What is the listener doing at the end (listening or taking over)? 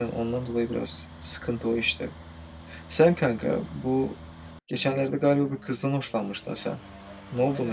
taking over